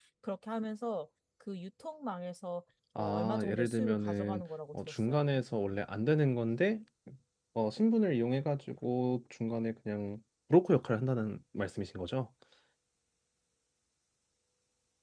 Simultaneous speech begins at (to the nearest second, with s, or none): 3 s